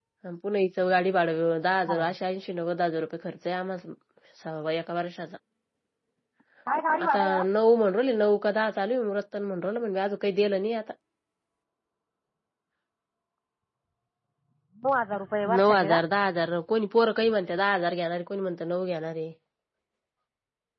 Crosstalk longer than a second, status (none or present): none